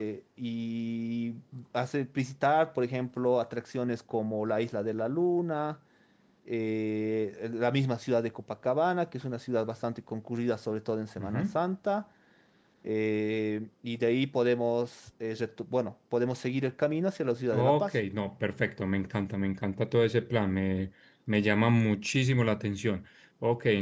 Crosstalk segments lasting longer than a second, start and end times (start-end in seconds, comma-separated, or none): none